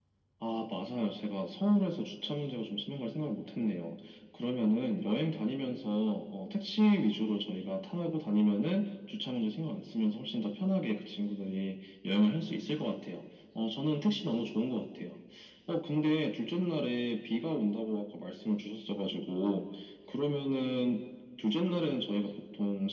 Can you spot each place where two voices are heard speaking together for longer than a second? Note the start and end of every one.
none

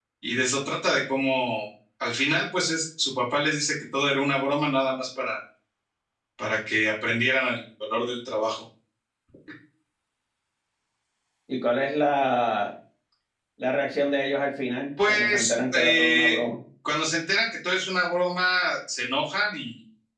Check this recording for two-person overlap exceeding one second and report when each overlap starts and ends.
15.1-16.4

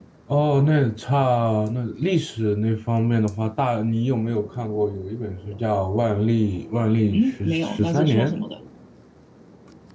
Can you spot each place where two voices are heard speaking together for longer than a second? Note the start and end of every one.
7.1-8.3

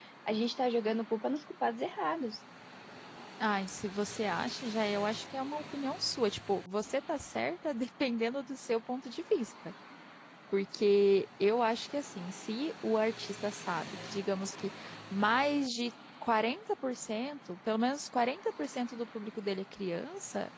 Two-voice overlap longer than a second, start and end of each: none

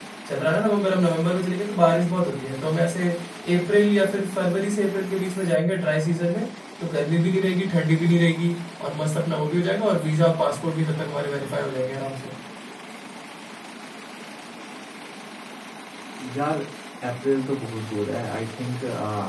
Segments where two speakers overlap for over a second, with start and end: none

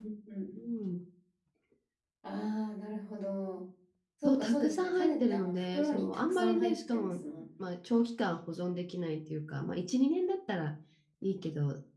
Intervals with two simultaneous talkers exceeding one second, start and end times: 4.2-7.2

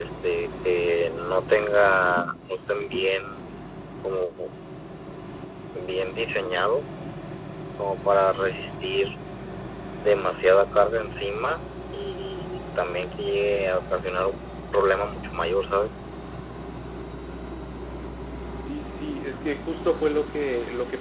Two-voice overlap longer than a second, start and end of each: none

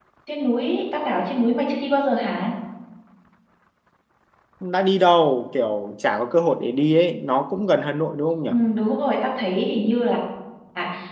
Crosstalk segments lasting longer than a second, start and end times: none

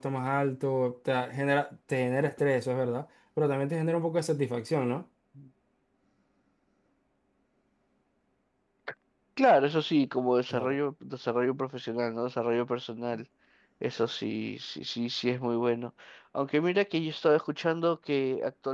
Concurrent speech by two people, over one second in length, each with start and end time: none

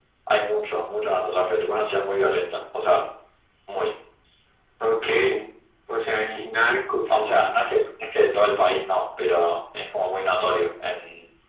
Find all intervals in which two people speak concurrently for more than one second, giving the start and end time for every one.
none

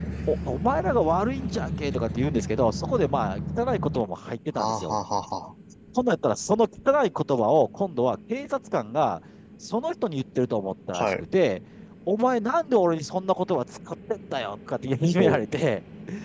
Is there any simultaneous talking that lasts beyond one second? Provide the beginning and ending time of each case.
none

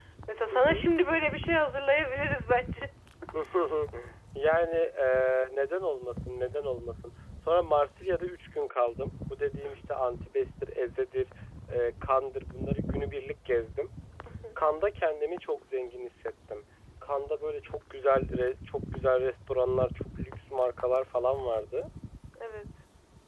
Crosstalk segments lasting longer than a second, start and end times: none

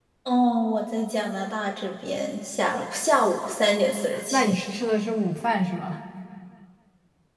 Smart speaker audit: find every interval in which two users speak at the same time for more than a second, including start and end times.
none

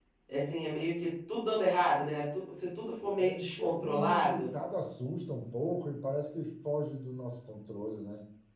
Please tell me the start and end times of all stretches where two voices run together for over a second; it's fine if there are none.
3.2-4.4

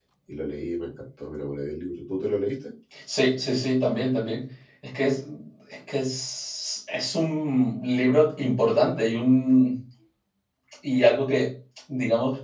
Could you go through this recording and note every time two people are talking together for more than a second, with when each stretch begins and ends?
none

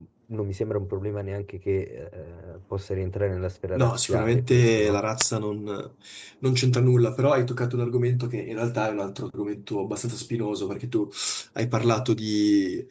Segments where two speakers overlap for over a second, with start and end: 3.8-5.0

